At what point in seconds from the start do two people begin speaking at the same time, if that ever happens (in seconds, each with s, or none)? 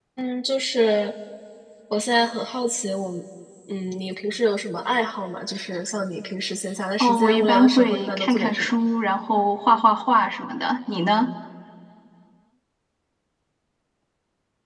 7.0 s